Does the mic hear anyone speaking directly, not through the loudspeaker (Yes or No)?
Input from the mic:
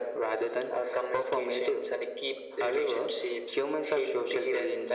No